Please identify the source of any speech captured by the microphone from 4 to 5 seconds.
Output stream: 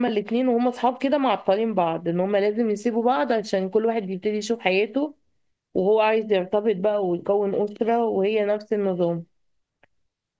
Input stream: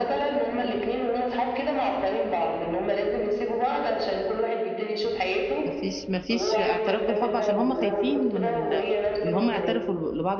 echo only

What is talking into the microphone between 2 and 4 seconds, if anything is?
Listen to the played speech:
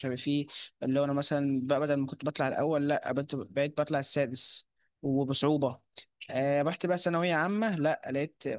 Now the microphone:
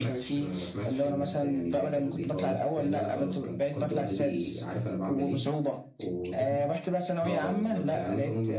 both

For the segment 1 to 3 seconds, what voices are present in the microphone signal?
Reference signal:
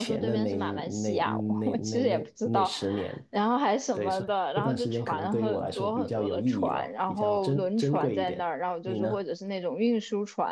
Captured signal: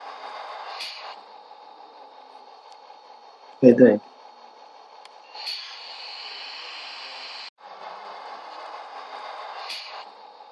neither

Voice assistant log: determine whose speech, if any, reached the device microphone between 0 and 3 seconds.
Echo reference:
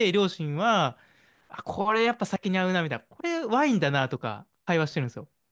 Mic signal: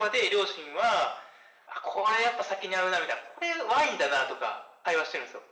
echo only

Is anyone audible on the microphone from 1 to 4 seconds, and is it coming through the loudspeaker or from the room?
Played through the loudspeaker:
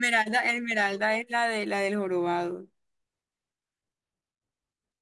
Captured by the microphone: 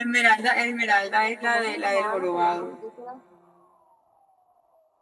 both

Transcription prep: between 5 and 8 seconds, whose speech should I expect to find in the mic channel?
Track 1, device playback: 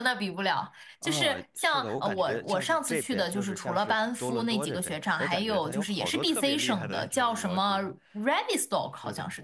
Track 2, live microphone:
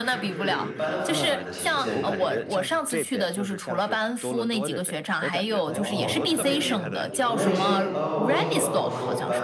both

